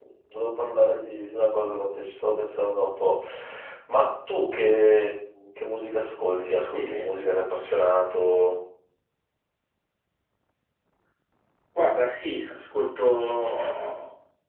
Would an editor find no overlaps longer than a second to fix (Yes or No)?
Yes